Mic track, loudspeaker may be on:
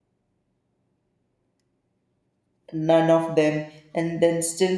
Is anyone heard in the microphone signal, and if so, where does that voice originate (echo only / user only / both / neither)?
user only